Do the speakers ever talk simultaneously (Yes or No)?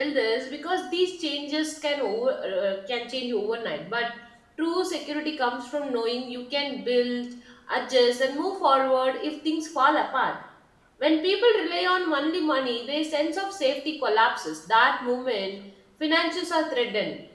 No